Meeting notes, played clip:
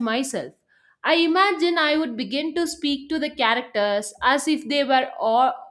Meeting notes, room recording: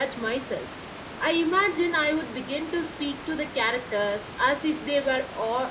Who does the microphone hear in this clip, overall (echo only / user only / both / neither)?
echo only